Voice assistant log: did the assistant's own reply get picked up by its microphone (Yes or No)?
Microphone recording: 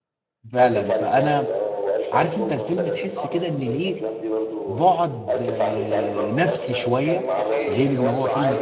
Yes